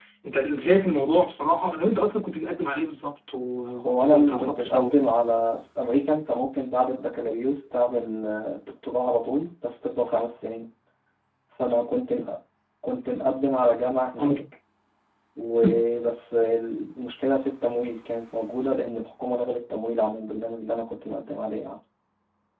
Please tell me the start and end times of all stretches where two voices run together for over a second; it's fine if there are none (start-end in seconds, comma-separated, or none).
3.8-5.0